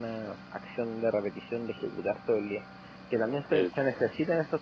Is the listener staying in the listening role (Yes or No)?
Yes